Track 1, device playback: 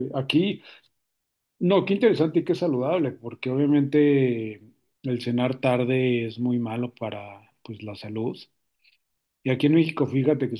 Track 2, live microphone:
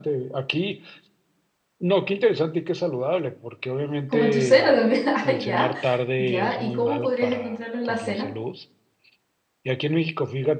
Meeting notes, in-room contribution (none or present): present